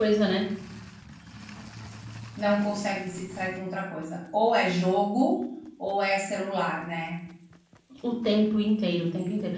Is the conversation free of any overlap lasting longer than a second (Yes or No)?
Yes